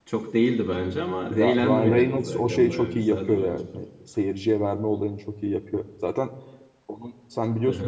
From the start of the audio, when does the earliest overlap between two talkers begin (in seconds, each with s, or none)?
1.3 s